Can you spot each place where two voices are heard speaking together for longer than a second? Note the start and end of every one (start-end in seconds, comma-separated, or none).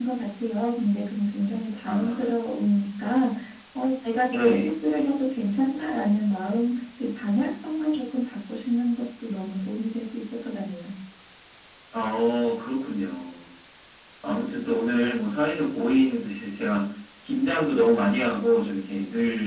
none